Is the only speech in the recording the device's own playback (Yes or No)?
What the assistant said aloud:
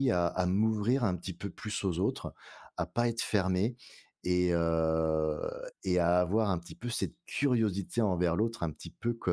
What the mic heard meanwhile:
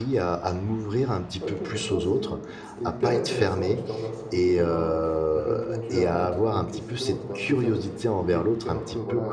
No